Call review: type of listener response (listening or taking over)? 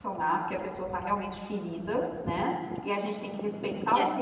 listening